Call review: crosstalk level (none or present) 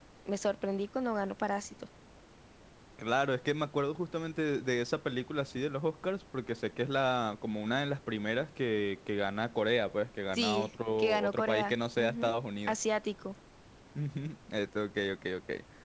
present